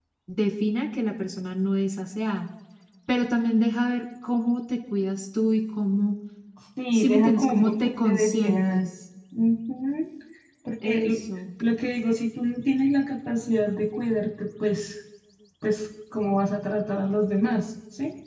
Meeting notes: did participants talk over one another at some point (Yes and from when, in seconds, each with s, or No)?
Yes, from 6.9 s